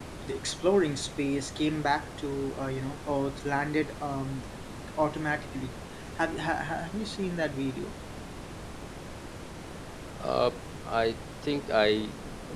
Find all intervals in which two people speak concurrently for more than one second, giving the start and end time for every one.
none

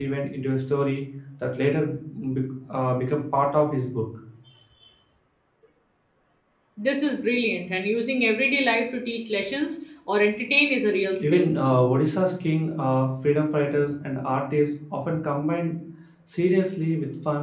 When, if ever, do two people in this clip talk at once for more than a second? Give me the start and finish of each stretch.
none

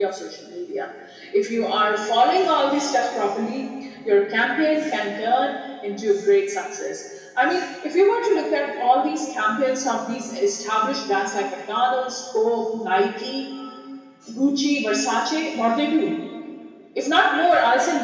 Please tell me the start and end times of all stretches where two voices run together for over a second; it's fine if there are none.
none

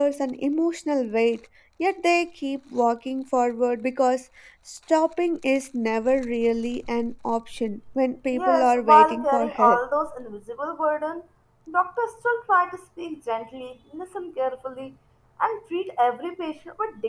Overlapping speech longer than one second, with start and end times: 8.3-9.8

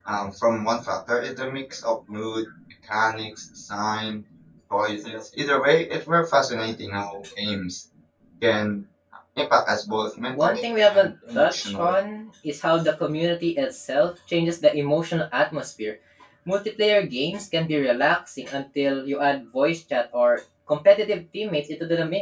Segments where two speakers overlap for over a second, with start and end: 10.3-11.9

